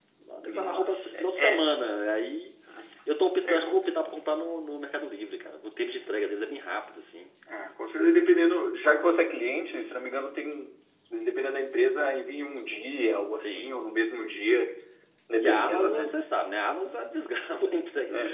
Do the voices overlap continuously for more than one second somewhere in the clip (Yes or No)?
Yes